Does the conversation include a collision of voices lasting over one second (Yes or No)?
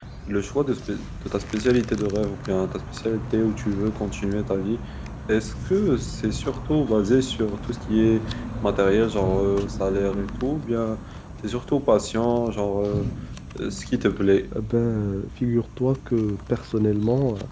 No